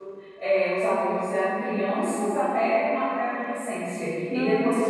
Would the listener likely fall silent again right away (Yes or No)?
Yes